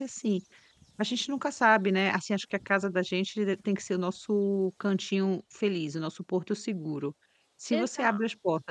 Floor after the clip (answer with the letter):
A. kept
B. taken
A